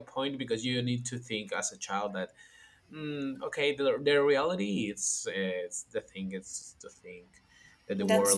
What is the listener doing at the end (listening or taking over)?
listening